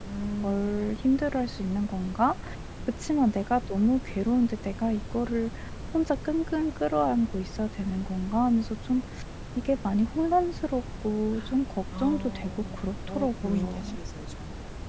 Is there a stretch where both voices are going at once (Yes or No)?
Yes